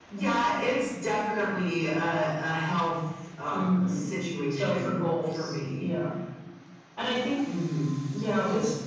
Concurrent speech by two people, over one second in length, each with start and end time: 4.5-5.8

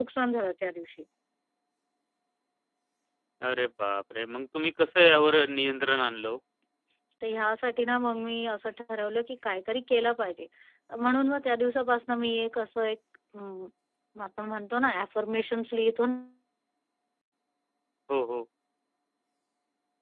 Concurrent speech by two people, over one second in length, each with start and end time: none

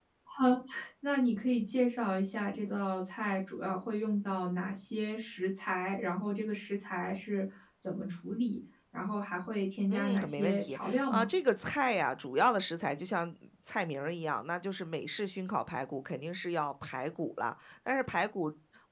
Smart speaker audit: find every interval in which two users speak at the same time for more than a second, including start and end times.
9.9-11.3

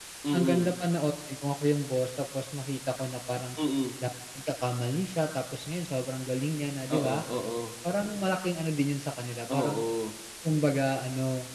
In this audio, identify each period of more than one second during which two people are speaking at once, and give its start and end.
none

